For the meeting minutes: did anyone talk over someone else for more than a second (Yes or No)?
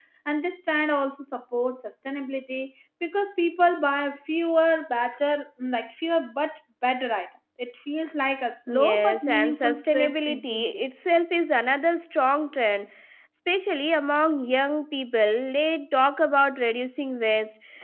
Yes